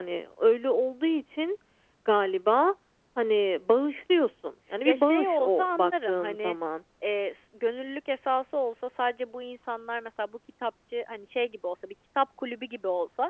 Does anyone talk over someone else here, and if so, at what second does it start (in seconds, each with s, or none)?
4.8 s